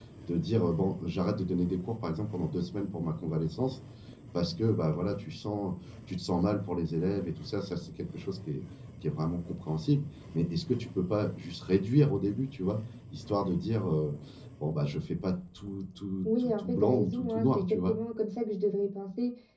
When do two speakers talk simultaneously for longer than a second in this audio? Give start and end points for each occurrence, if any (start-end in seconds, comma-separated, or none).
16.2-17.9